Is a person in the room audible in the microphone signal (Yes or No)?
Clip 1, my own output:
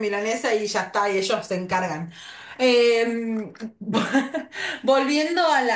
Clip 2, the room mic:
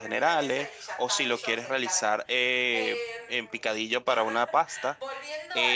Yes